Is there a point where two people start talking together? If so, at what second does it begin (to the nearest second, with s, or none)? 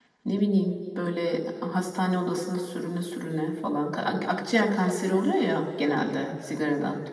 none